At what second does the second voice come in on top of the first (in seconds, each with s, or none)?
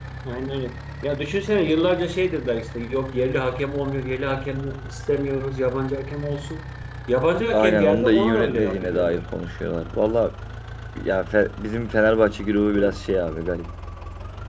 7.5 s